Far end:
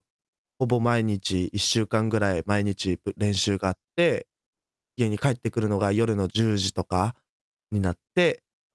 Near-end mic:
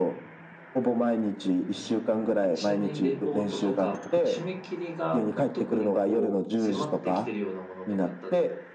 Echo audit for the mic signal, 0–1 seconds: echo only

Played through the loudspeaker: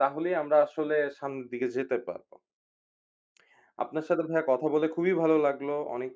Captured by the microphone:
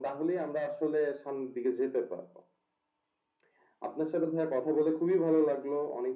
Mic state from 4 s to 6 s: echo only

